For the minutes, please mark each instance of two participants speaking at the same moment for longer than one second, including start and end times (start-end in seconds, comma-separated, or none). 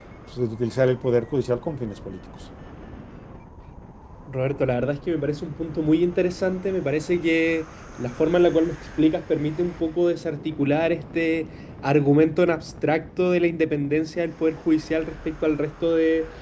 none